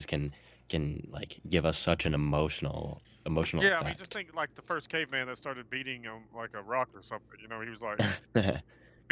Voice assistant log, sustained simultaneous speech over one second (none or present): none